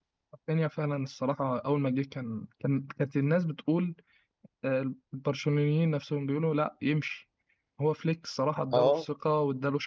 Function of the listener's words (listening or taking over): listening